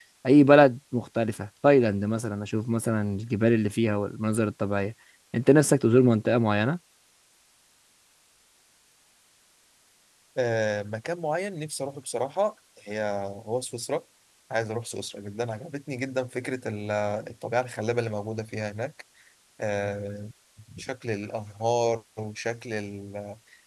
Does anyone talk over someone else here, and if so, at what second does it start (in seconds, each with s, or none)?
none